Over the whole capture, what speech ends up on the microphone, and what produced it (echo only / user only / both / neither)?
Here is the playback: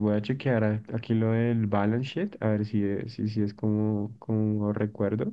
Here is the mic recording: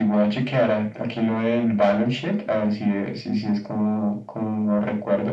echo only